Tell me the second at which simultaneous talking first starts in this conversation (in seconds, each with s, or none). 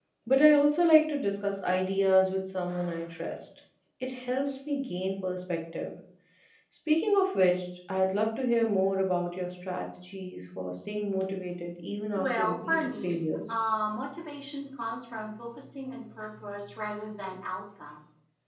12.2 s